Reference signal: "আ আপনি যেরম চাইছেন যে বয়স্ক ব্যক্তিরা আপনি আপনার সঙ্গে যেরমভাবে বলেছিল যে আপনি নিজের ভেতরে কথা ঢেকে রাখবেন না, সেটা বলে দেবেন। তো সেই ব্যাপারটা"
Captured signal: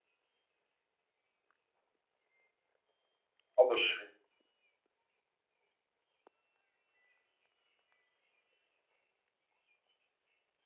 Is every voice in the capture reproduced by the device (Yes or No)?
No